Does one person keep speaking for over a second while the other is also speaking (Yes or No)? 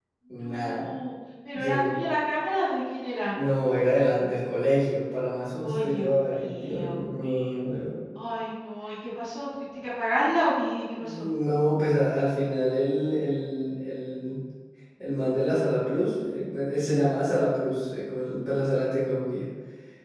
Yes